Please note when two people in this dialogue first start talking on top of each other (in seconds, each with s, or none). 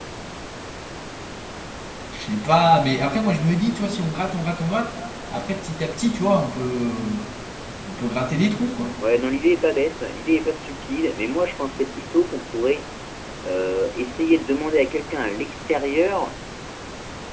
none